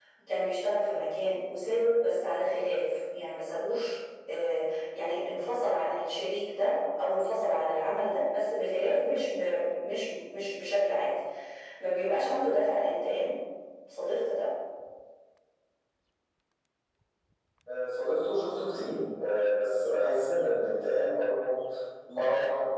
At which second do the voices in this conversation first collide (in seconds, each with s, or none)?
none